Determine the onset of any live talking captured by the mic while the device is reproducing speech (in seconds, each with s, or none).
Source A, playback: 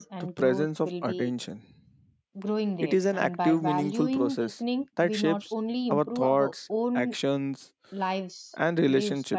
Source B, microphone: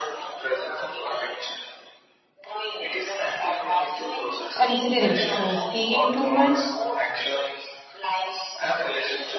4.5 s